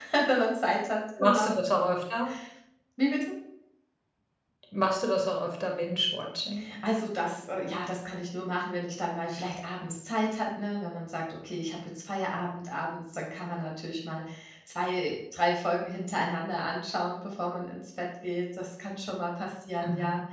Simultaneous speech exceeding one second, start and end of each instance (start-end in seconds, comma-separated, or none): none